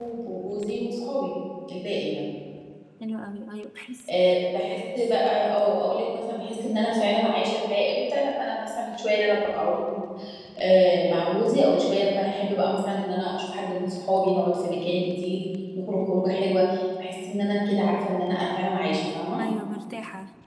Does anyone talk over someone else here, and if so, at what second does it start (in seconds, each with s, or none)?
none